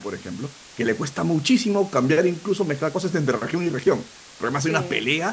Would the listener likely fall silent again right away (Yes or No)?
No